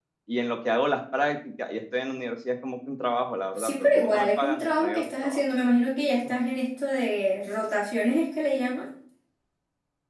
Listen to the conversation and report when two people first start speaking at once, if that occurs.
3.6 s

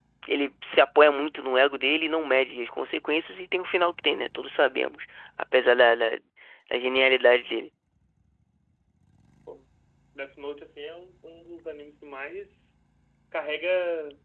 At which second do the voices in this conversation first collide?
none

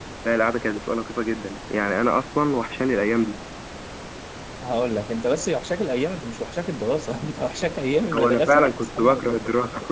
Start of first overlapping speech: 8.1 s

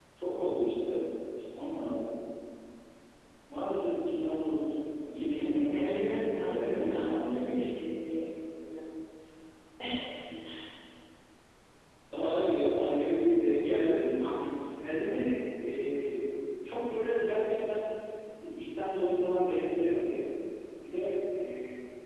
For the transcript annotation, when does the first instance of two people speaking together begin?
5.4 s

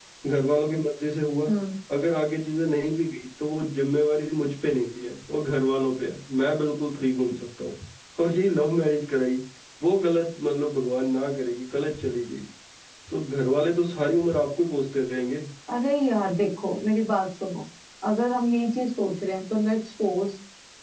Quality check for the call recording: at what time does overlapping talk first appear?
none

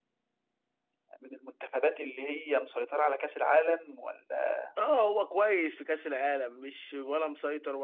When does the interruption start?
none

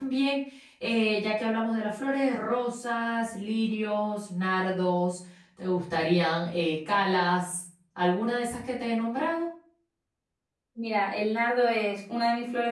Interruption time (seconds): none

